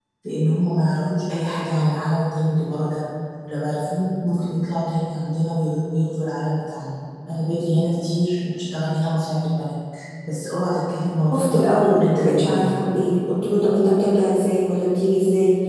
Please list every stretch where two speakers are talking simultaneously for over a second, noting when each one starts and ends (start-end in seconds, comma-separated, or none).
11.3-12.7